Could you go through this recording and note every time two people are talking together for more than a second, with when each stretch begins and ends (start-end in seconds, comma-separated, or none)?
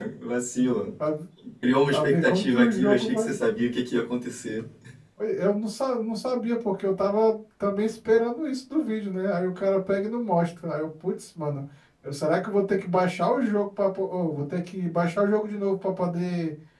1.9-3.4